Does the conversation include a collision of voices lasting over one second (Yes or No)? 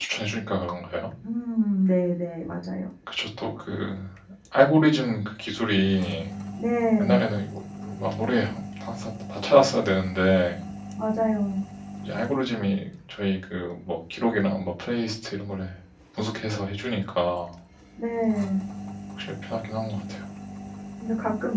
No